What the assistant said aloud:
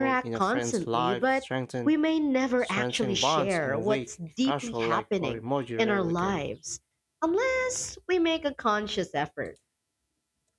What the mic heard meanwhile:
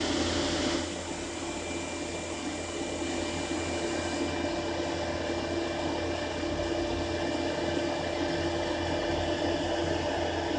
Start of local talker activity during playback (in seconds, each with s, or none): none